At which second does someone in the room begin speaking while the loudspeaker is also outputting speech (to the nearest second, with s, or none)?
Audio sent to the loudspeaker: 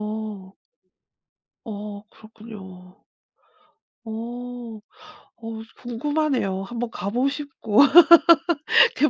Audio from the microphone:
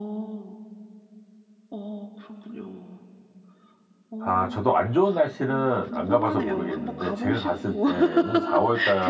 4 s